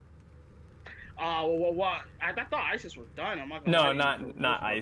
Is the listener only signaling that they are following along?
No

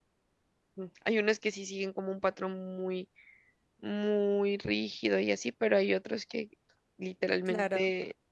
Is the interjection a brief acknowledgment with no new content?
Yes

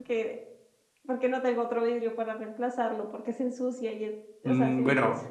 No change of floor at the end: No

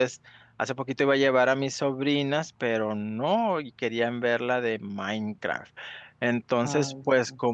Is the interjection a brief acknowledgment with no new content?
Yes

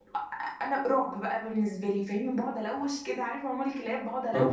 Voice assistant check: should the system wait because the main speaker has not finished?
Yes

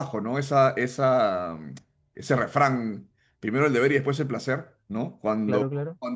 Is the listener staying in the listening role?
Yes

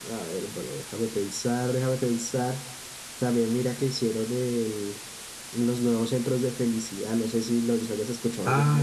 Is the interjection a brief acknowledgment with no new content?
No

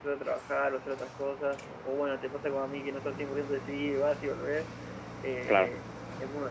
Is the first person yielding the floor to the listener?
No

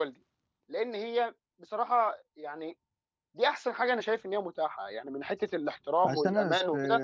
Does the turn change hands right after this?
Yes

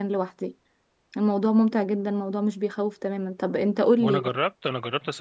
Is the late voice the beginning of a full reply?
Yes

